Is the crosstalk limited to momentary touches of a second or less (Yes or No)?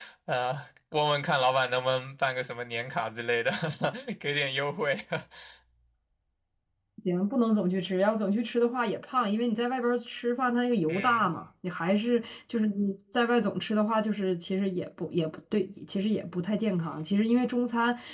Yes